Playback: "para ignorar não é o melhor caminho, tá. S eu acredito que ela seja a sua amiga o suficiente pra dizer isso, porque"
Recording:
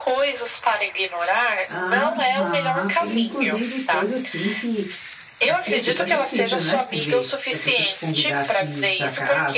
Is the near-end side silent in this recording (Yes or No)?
No